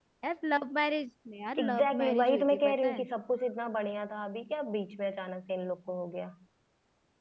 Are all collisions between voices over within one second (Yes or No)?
No